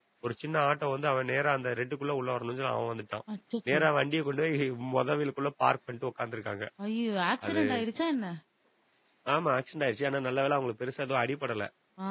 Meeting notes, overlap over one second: none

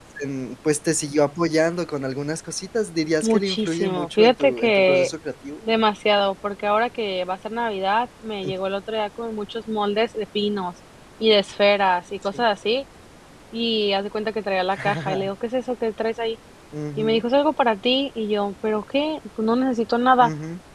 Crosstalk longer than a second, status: present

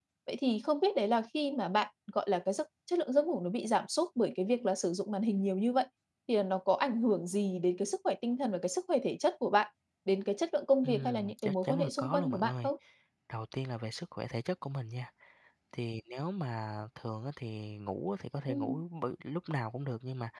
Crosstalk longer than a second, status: present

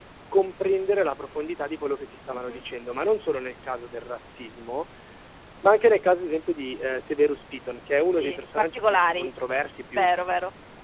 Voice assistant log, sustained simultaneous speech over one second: present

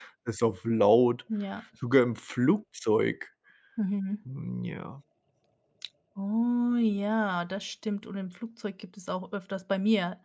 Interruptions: none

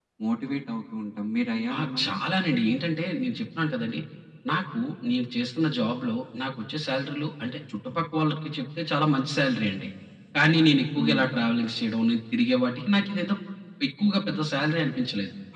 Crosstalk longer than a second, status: none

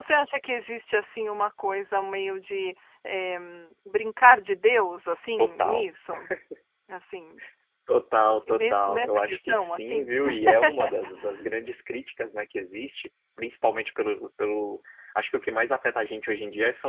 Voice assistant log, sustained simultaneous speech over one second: present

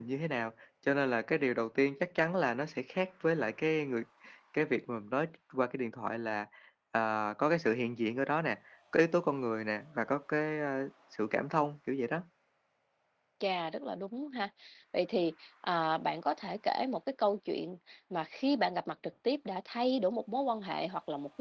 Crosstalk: none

